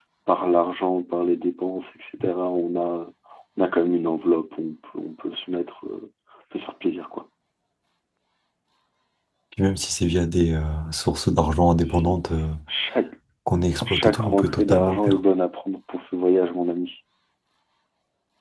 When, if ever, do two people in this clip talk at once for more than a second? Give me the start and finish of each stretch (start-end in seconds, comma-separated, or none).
13.9-15.2